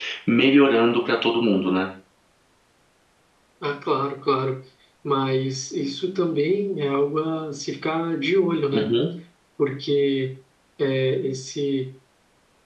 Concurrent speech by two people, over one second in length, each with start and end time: none

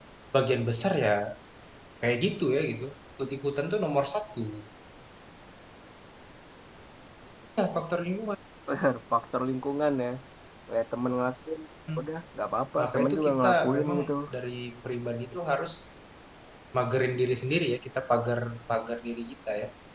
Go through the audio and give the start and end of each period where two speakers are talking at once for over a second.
12.8-14.0

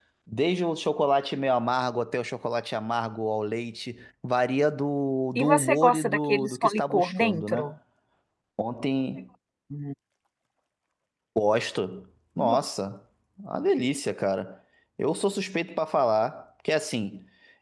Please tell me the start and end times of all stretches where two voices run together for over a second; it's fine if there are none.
5.4-7.7

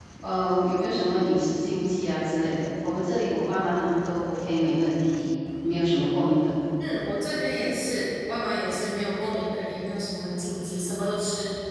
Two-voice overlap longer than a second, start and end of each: none

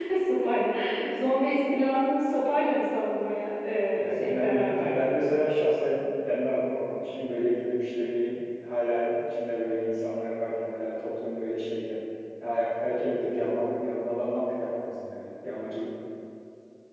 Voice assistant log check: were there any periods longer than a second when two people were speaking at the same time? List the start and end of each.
4.0-5.2

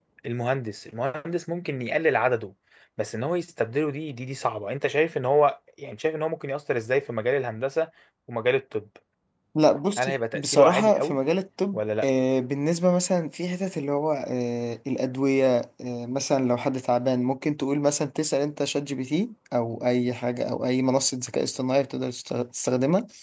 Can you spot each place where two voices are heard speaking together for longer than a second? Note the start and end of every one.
10.0-11.2

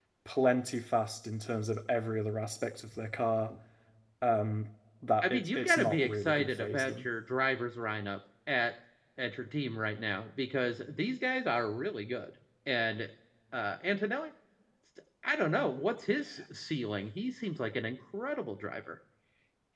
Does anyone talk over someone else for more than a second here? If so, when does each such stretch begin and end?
5.2-7.0

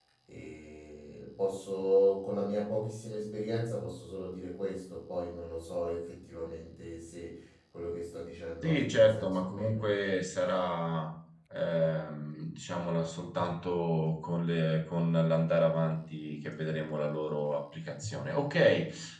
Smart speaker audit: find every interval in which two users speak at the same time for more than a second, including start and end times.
8.6-9.9

